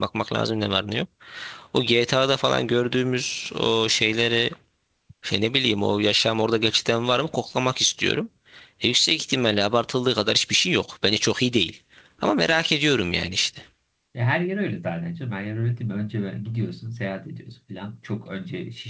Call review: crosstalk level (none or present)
none